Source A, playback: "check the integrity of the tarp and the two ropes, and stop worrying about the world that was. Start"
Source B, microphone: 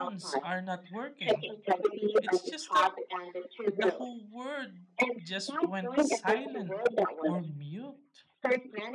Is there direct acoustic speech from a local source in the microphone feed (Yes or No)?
Yes